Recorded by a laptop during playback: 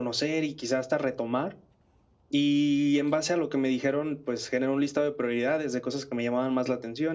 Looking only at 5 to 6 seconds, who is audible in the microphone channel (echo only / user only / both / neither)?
echo only